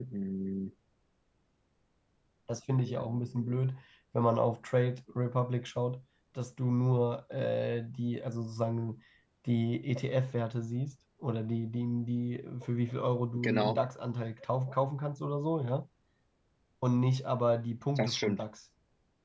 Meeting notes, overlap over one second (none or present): none